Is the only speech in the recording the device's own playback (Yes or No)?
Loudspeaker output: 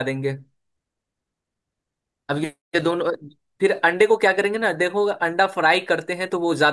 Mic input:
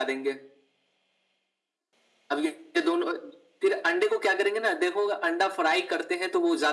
Yes